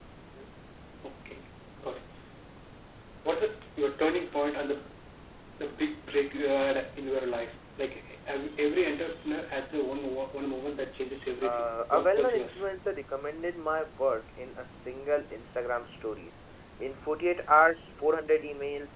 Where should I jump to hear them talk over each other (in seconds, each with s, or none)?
11.4 s